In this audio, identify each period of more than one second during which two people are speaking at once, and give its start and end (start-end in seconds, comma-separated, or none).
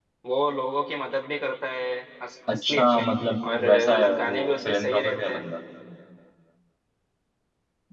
3.6-5.4